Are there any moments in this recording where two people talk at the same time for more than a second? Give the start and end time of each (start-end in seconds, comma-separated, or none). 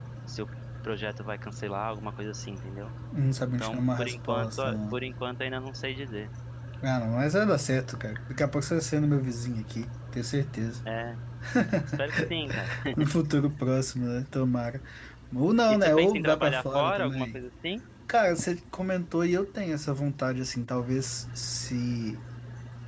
3.5-5.0, 15.7-17.4